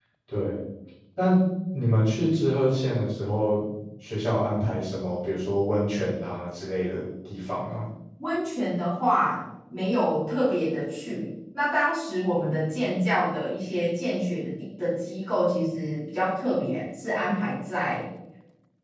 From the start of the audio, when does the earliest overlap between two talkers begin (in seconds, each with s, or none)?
none